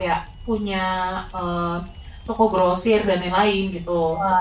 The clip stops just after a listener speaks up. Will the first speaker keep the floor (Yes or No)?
No